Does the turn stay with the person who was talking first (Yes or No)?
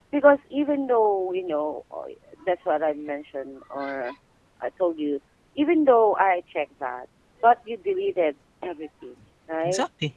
Yes